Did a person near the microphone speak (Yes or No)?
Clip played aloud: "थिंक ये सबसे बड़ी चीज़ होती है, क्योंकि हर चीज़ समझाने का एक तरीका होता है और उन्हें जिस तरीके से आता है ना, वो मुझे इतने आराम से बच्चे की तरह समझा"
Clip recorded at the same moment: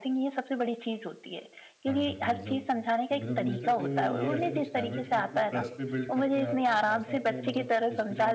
Yes